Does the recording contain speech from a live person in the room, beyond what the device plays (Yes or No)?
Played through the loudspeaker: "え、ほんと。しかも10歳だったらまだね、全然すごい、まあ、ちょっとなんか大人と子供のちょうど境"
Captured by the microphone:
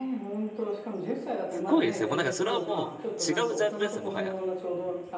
Yes